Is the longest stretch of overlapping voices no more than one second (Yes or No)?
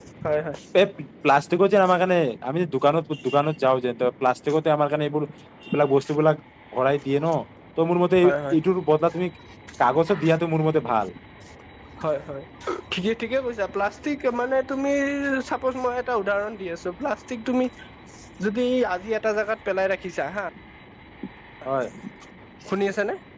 Yes